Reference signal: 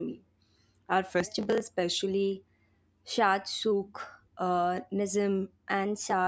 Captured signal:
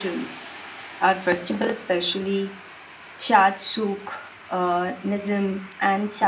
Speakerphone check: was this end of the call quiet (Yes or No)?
Yes